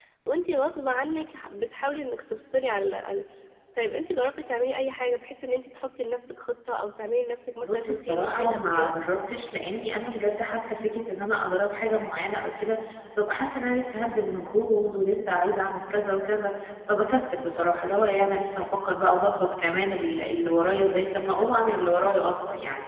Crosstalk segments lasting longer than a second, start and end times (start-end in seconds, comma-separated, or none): 7.6-8.9